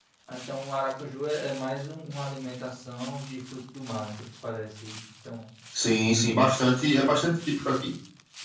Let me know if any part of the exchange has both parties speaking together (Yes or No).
No